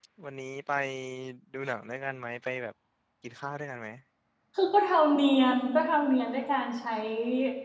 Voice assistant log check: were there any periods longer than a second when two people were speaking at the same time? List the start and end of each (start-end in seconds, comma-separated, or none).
none